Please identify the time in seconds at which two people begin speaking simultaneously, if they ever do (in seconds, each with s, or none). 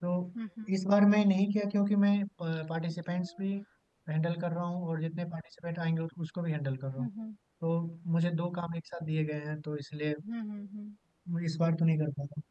none